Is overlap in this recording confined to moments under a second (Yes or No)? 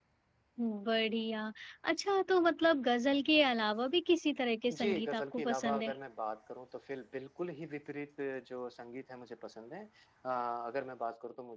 No